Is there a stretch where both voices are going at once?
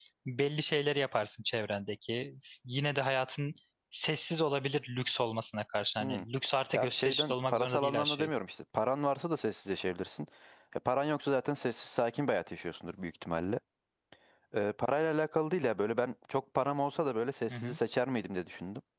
Yes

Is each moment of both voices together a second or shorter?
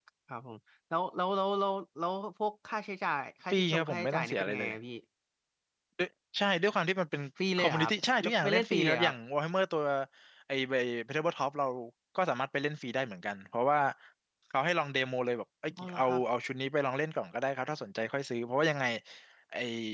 No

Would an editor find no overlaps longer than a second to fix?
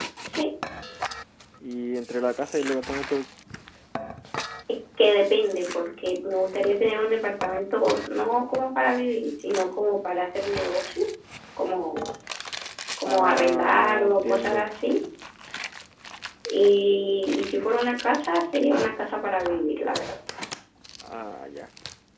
No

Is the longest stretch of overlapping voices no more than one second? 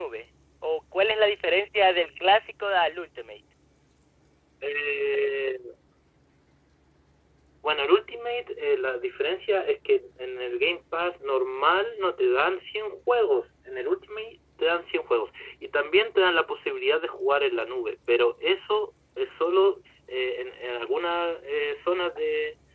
Yes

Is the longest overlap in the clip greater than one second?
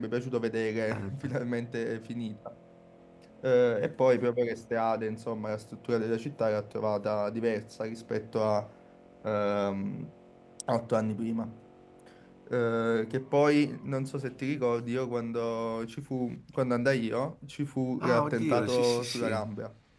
Yes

